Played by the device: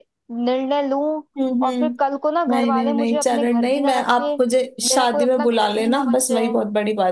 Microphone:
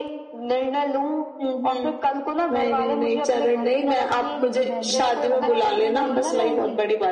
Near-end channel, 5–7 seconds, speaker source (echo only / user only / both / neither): both